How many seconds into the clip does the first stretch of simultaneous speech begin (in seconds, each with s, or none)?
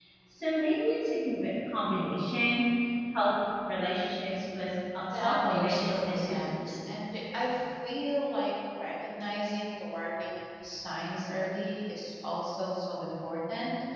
5.1 s